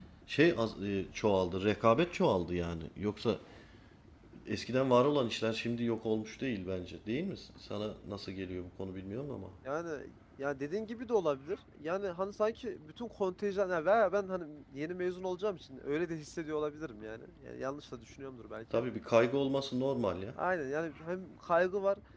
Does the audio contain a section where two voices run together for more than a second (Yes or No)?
No